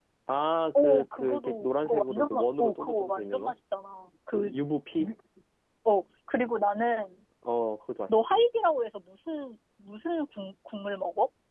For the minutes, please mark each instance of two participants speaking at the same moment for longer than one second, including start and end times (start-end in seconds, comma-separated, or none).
0.8-3.5